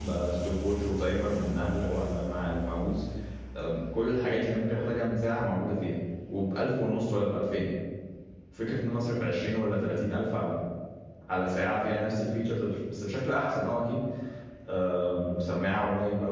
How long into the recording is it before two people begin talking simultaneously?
none

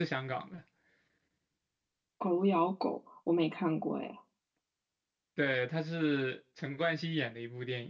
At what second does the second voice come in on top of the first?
none

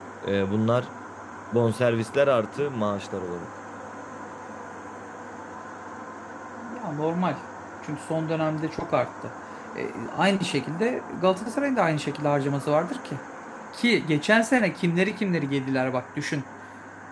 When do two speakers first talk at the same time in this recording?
none

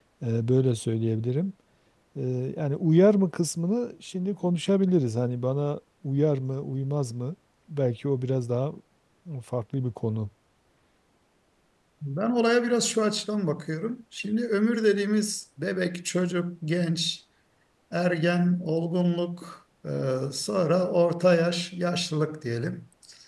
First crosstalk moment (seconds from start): none

